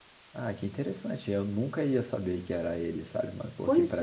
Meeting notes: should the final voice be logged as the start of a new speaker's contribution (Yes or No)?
No